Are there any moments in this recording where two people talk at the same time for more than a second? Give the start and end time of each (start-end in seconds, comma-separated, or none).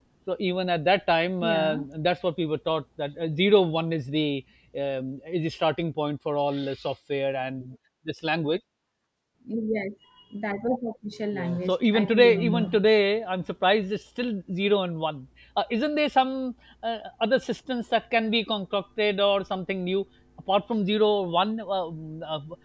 11.3-12.8